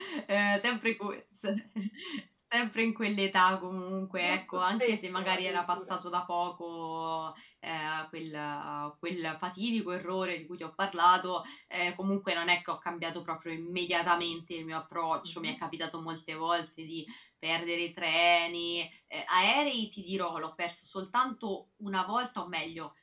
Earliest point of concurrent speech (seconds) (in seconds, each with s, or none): 4.2 s